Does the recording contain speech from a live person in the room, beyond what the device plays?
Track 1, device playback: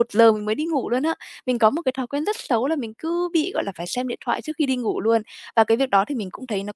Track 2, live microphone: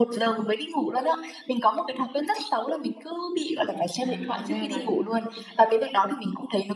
Yes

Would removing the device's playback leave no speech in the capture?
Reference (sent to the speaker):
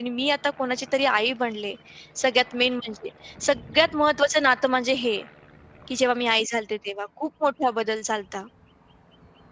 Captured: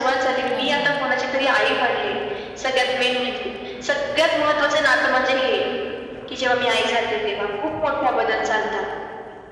No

